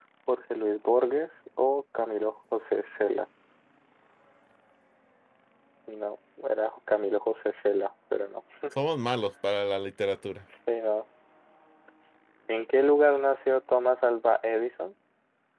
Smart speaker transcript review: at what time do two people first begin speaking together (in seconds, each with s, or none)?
none